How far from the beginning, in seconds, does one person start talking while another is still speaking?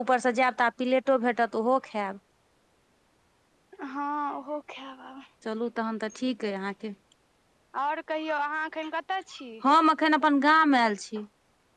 none

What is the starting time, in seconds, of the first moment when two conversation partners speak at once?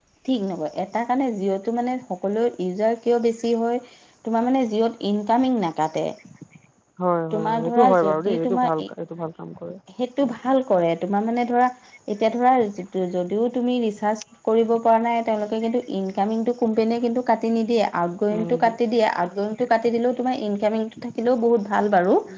7.4 s

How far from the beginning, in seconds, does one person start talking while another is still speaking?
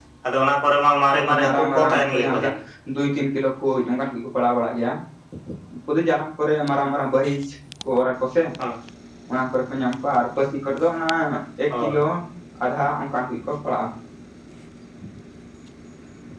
1.1 s

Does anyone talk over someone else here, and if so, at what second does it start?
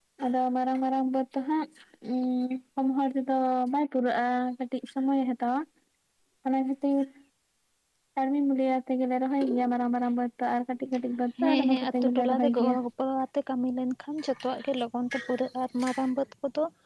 11.4 s

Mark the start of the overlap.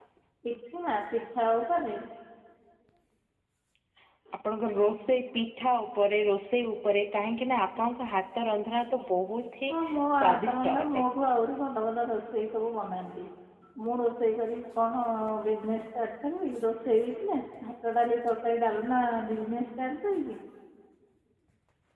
9.7 s

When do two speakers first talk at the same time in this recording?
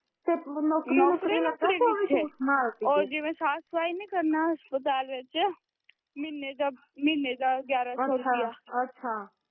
1.0 s

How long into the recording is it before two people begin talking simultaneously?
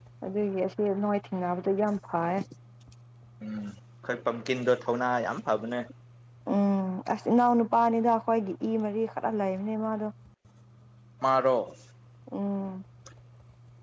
none

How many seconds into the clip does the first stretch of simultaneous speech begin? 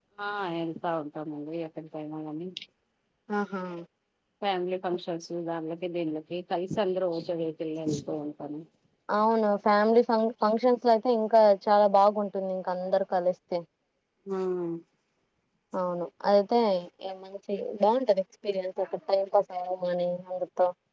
none

